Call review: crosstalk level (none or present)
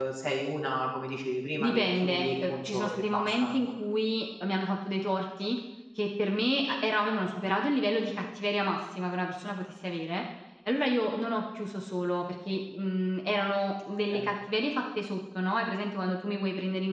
present